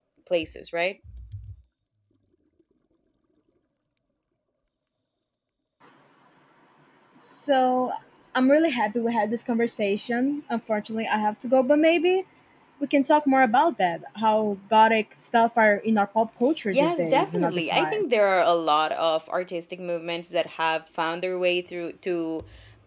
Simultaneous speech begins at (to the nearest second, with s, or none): 17 s